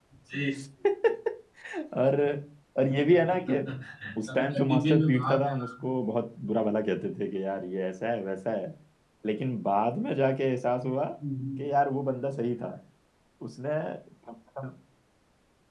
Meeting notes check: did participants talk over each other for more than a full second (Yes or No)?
Yes